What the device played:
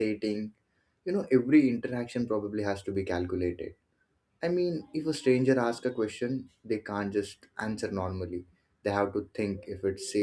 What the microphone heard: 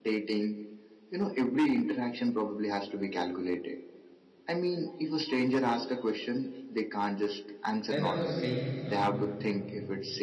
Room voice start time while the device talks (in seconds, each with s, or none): 7.9 s